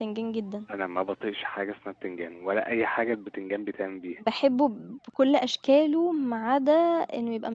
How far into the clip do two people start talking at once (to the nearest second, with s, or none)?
none